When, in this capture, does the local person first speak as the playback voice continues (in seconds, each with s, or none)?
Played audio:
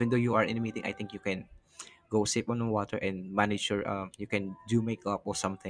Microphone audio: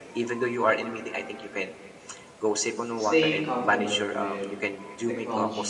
3.0 s